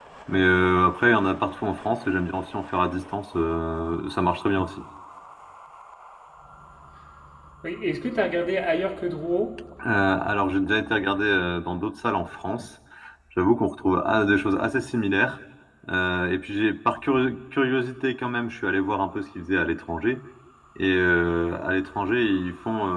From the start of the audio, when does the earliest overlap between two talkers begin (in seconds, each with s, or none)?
none